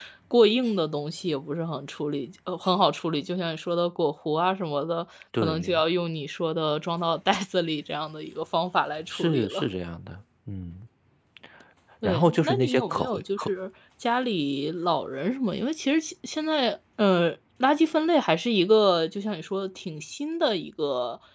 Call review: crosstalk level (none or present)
present